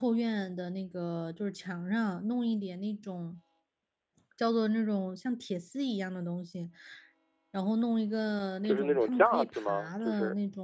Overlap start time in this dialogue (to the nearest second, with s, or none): 9 s